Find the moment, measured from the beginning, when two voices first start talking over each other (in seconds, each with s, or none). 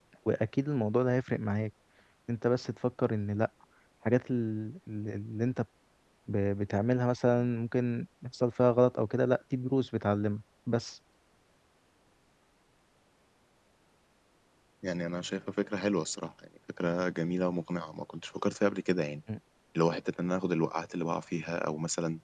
none